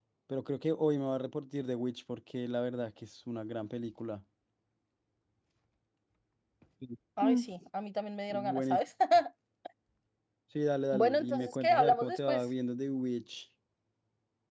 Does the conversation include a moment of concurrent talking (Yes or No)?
Yes